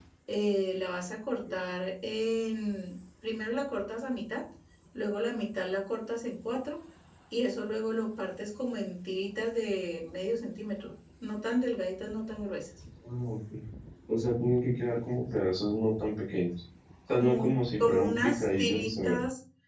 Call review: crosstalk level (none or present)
present